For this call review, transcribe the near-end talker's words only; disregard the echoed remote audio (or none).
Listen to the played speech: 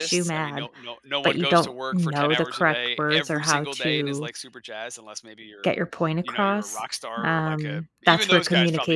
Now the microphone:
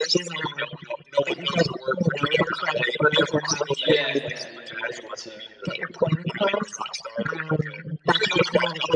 Yeah, yeah, yeah, you're able to